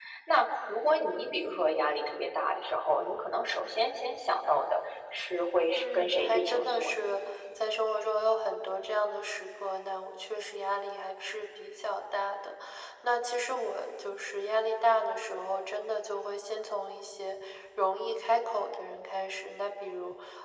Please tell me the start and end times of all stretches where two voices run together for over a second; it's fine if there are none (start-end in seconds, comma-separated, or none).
5.8-7.0